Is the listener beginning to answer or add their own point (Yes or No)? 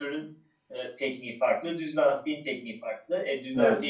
No